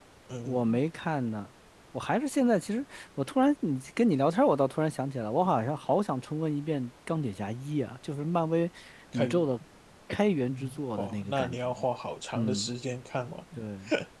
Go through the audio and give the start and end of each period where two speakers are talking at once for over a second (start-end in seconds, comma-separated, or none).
10.5-11.7